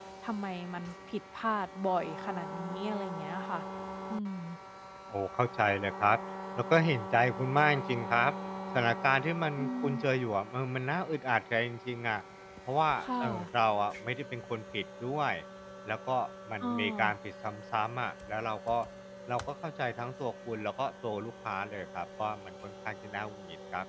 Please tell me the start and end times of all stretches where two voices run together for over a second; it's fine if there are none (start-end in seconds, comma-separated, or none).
none